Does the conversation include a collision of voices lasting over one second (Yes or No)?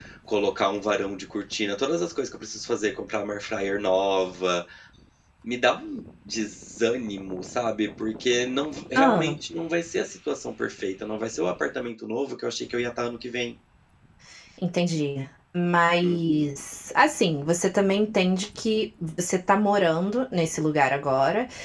No